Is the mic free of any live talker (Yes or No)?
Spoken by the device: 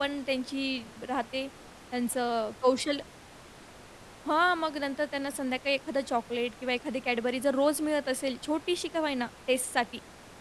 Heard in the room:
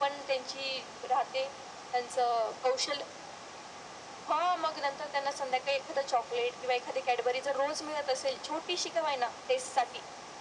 Yes